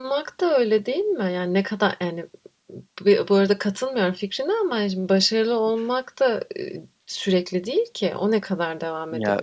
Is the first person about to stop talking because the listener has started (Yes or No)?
No